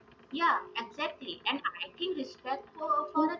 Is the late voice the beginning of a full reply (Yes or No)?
No